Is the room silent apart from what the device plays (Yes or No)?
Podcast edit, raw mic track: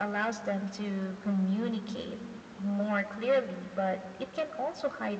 Yes